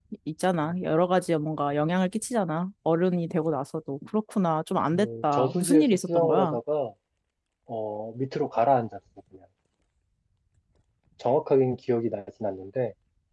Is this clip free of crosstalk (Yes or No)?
No